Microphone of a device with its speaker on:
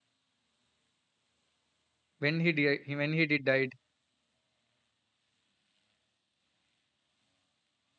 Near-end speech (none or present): present